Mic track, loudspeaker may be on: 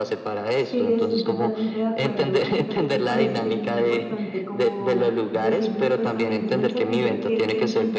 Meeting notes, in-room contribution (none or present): present